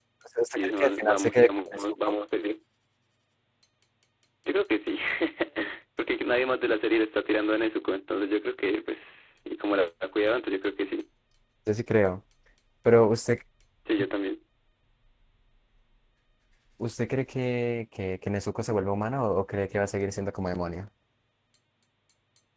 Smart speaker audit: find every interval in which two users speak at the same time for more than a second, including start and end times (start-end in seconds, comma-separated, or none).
0.6-2.1